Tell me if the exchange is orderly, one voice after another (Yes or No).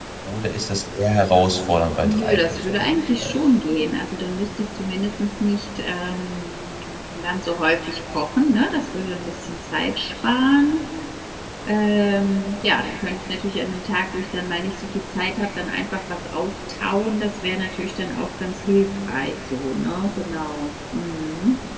No